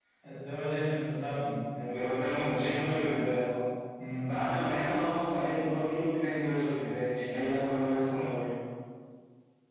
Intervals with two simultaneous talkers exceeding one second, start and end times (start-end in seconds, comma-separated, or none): 1.9-3.1